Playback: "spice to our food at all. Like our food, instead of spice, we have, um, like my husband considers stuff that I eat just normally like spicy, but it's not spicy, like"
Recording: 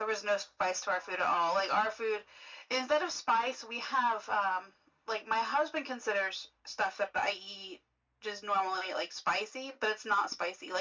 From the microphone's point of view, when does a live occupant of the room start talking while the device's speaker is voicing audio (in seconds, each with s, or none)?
none